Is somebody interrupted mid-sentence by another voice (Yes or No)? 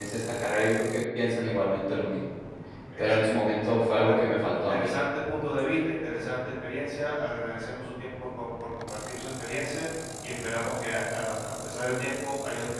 Yes